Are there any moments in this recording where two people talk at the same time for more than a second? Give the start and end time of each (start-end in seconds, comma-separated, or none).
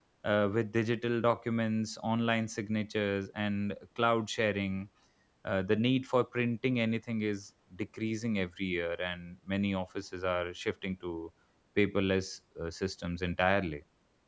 none